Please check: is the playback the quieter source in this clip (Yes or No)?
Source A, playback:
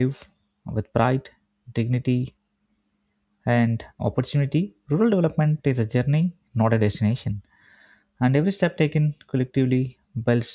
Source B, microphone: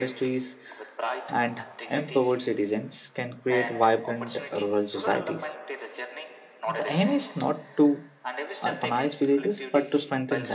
Yes